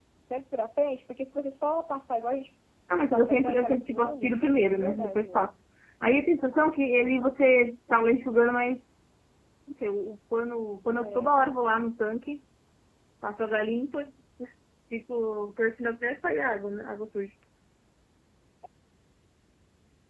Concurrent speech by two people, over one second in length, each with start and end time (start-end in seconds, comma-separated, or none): 3.1-5.5